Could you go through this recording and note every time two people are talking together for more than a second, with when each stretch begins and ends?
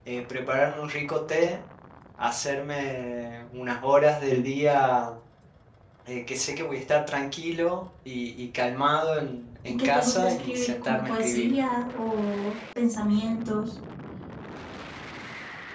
9.7-11.5

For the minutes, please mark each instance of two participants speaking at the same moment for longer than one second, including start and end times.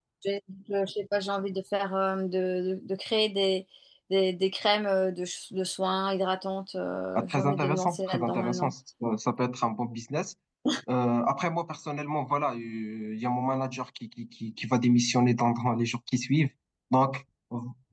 7.2-8.7

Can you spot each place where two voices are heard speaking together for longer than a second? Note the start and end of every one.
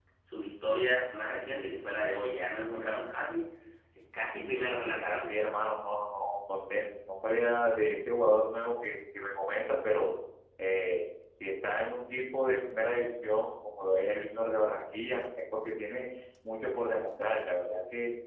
none

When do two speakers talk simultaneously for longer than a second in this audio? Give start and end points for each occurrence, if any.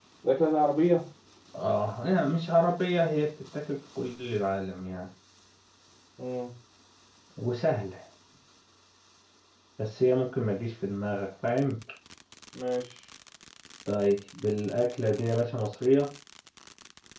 none

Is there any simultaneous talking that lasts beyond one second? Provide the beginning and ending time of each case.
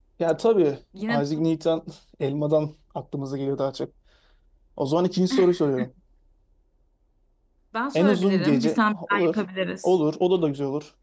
7.9-9.4

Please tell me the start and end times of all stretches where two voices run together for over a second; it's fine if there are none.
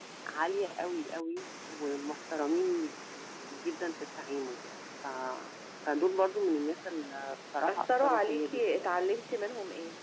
7.7-8.9

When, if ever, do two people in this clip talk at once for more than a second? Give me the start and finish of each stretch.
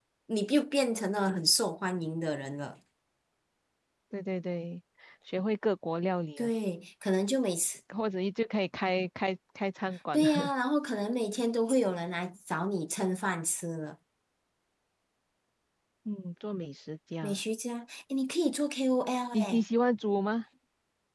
none

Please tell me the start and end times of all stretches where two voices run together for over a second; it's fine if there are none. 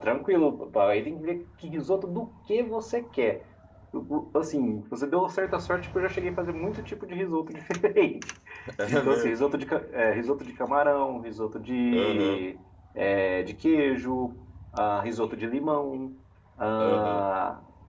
none

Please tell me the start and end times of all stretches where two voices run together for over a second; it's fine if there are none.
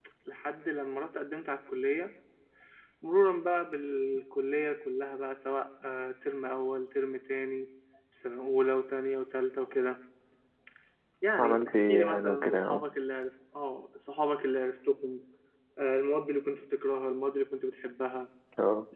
11.4-12.8

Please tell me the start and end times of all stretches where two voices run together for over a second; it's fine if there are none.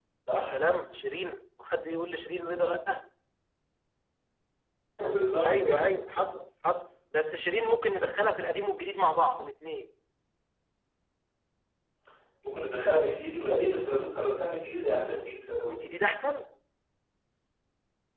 none

